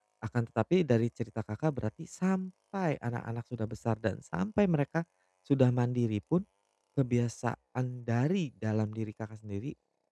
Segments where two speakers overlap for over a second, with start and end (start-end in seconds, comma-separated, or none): none